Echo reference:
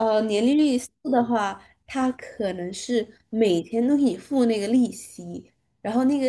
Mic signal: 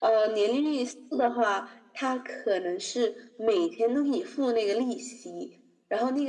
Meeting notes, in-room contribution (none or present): none